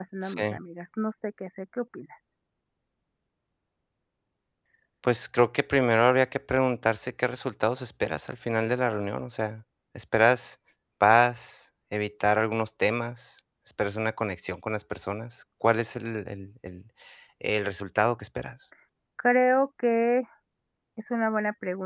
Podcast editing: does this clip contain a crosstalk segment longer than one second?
No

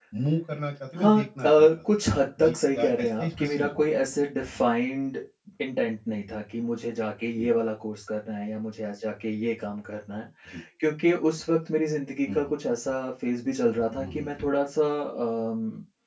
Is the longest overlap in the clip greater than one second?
Yes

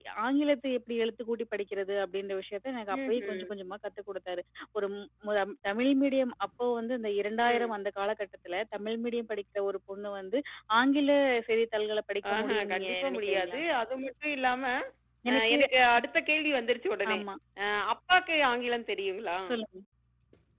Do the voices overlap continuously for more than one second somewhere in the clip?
Yes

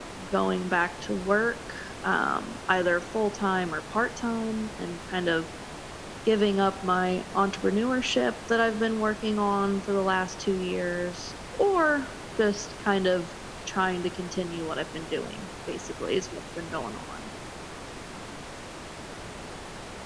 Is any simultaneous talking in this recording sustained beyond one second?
No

